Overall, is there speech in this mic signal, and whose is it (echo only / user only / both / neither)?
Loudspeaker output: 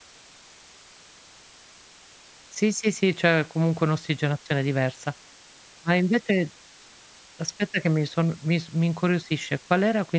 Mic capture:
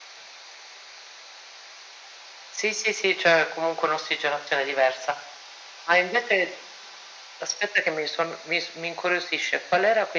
echo only